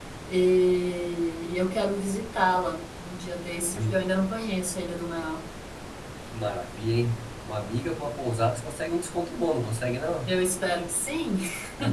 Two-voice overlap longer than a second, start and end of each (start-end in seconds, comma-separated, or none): none